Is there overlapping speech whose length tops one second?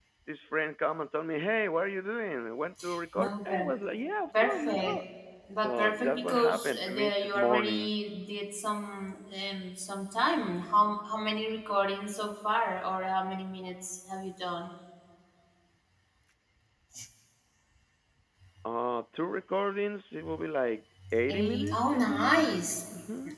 Yes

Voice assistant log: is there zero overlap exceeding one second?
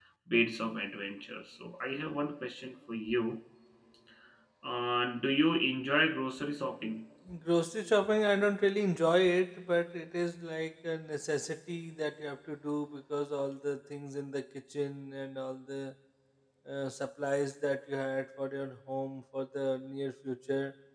Yes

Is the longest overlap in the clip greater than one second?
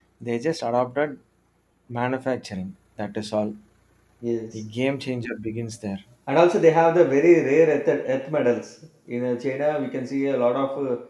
No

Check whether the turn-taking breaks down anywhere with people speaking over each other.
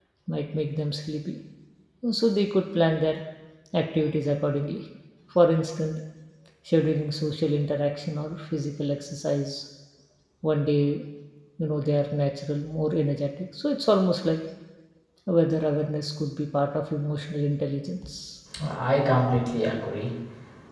No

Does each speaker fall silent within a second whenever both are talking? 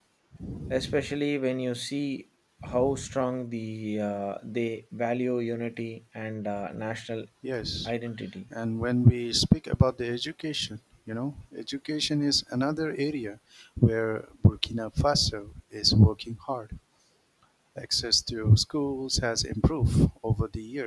Yes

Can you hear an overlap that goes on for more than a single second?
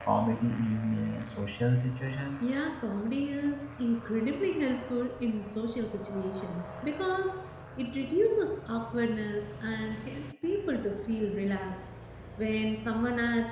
No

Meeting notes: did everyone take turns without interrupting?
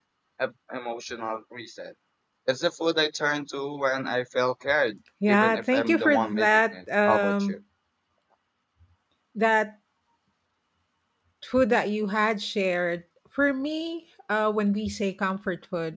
No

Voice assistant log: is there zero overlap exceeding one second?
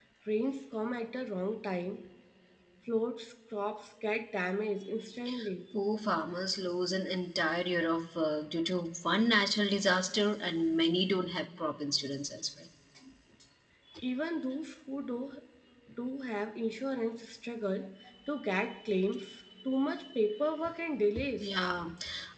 Yes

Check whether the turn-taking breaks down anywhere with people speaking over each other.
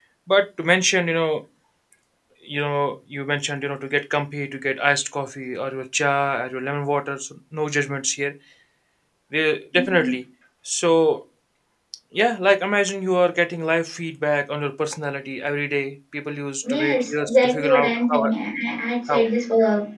Yes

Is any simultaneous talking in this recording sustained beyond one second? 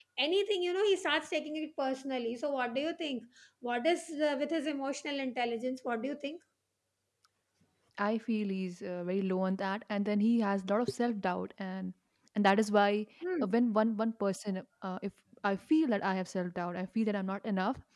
No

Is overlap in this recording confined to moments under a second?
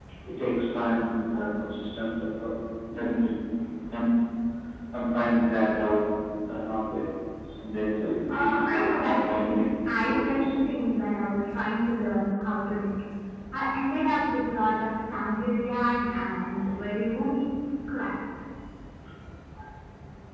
No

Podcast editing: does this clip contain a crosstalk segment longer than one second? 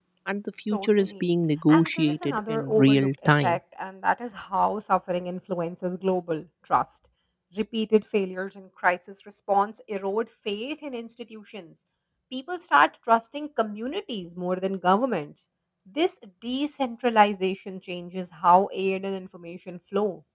Yes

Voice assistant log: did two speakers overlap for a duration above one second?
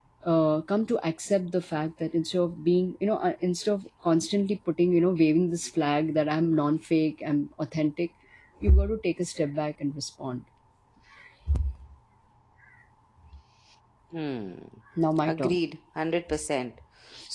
No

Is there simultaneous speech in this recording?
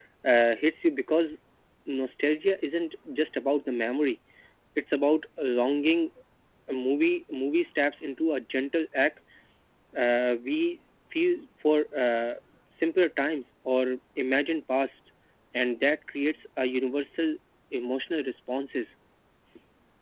No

